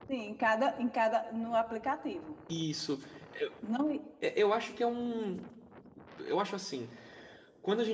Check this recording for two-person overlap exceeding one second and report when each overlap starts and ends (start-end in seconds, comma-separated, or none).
none